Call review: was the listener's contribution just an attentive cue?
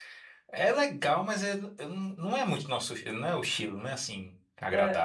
No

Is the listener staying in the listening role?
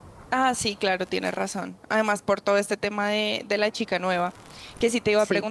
Yes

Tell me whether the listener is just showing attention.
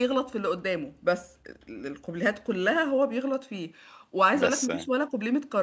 Yes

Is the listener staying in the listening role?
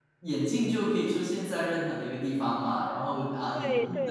Yes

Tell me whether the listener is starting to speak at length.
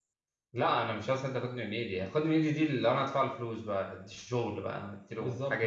Yes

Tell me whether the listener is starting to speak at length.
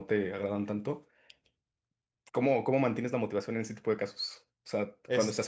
No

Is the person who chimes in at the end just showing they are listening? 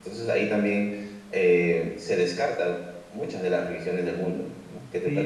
No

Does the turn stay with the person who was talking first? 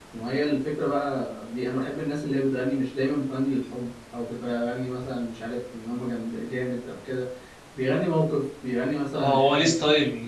No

